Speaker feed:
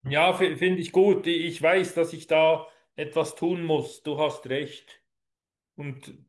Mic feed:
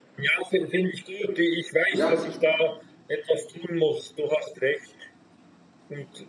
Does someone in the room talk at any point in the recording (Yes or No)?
Yes